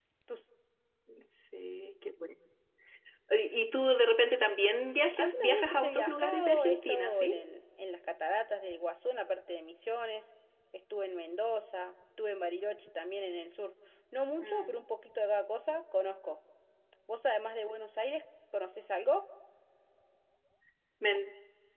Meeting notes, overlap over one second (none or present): present